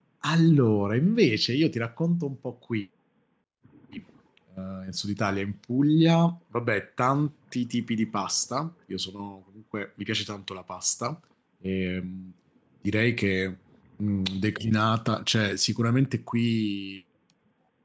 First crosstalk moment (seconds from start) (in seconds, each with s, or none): none